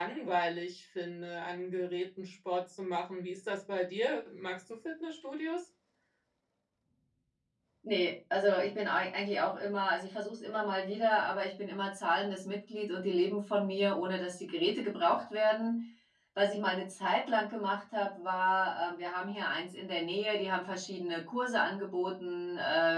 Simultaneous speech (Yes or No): No